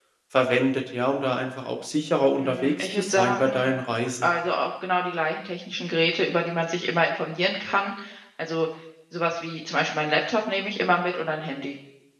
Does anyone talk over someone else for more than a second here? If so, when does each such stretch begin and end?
2.4-3.7

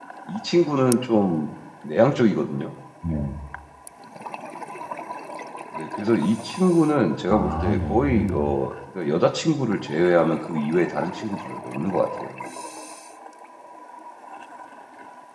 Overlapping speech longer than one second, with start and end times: 7.3-8.6

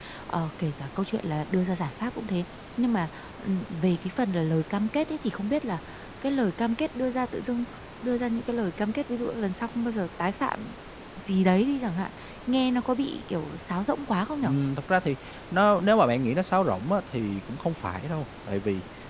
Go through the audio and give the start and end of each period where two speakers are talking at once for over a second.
none

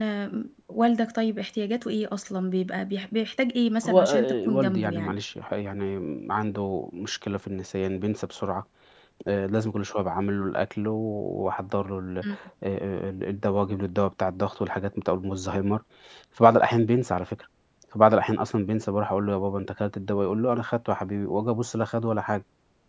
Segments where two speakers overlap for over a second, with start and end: 3.8-5.2

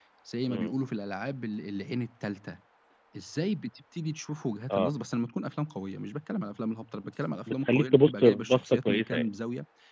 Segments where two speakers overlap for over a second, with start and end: 7.5-9.3

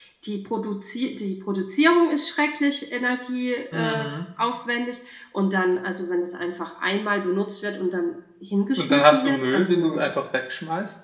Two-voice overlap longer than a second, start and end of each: 8.8-10.0

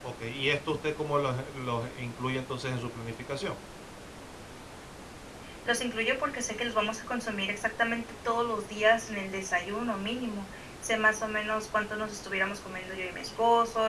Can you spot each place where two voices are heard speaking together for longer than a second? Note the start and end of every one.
none

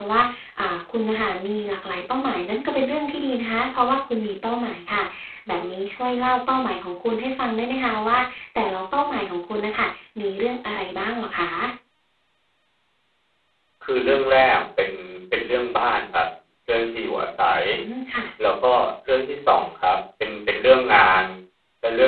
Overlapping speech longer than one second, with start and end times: none

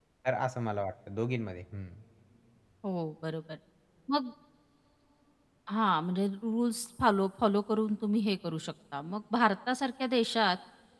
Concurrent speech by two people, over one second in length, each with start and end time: none

